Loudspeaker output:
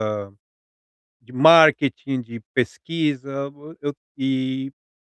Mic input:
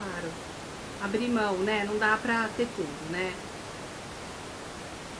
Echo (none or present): none